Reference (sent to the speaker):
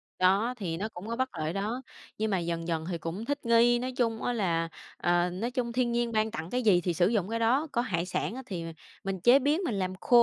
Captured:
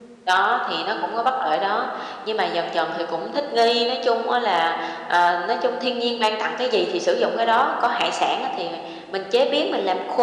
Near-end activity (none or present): none